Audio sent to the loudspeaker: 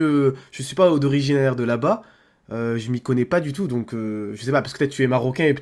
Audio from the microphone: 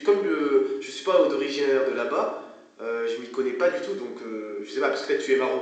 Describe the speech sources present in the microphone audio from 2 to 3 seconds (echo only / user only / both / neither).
echo only